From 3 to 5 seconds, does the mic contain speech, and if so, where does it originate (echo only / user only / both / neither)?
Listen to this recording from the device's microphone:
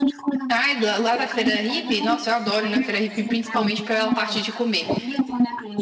both